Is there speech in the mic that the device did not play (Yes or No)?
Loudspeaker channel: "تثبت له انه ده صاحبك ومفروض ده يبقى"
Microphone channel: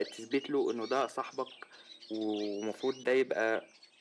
No